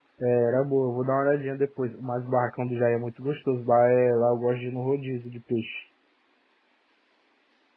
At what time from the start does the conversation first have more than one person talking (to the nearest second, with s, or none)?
none